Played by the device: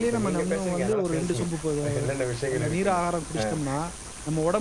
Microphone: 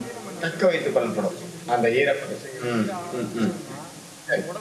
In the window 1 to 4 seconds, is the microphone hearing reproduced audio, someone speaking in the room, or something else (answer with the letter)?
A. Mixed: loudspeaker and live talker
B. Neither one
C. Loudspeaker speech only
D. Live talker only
A